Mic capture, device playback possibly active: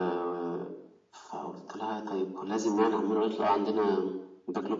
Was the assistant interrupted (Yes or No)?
No